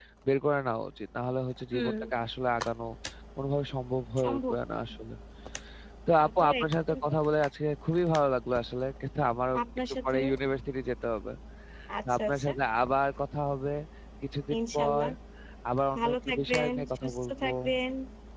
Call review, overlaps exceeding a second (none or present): present